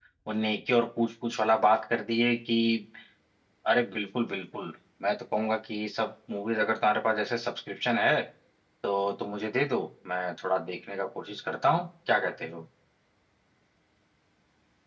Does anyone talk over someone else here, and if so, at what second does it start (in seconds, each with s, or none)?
none